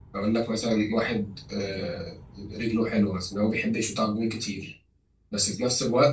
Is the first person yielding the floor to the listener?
No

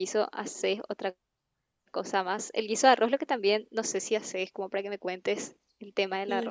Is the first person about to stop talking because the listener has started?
Yes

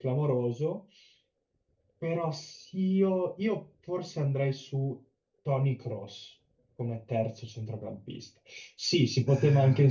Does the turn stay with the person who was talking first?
Yes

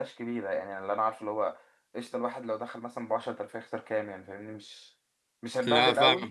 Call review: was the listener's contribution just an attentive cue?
Yes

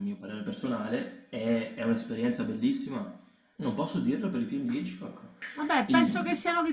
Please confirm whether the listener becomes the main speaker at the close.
Yes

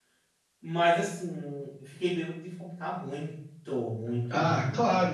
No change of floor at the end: No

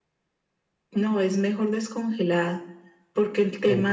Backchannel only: Yes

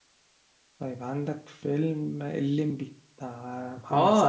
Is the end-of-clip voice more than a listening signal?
Yes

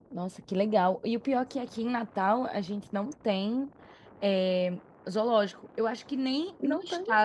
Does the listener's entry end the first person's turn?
No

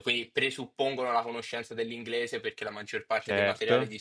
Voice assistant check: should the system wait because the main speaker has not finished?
Yes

